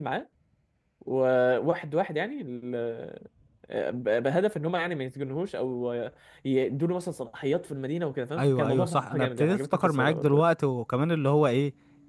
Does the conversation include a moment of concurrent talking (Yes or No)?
Yes